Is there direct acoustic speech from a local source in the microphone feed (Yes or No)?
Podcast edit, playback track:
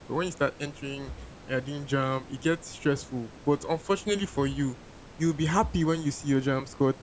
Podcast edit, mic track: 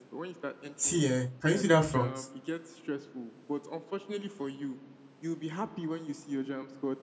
Yes